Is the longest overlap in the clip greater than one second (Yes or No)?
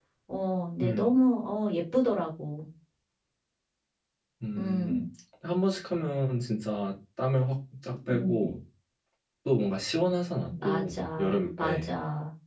Yes